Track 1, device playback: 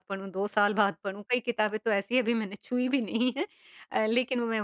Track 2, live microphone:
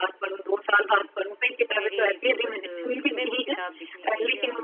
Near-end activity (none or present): present